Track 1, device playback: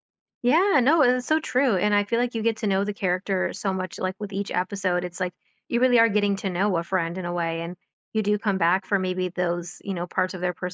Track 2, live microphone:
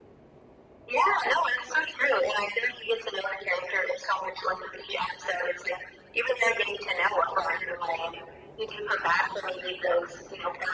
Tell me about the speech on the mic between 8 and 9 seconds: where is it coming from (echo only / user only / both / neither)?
echo only